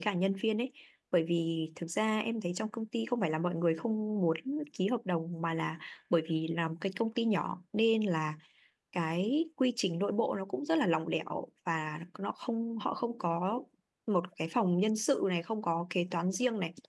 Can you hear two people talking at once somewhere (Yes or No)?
No